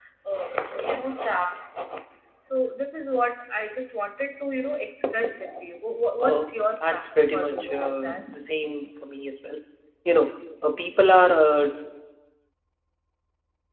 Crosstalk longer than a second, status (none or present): present